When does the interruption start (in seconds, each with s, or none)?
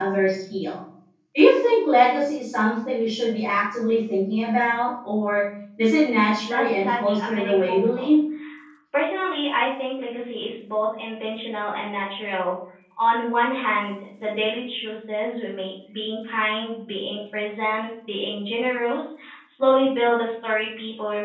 6.4 s